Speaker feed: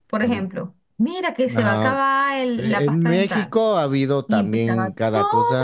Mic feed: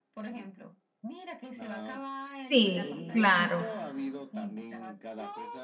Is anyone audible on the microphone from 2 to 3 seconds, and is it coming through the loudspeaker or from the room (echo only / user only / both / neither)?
both